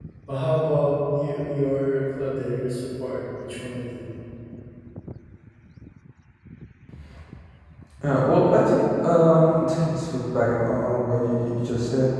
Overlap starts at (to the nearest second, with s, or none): none